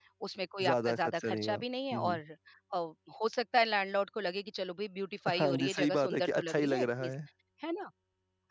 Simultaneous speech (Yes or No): Yes